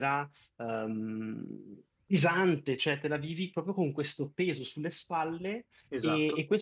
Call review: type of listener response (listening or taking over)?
listening